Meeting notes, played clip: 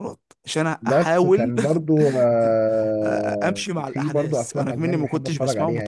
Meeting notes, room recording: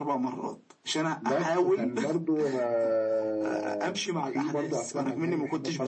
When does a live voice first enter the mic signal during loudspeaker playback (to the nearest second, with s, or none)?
none